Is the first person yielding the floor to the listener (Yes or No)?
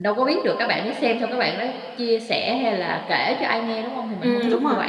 Yes